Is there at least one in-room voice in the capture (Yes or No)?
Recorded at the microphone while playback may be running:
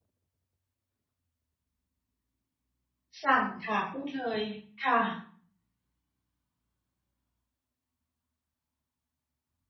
Yes